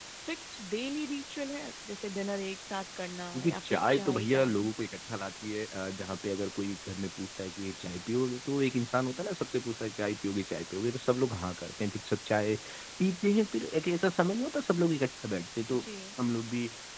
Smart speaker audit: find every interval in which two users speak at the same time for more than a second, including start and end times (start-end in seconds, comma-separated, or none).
3.3-4.7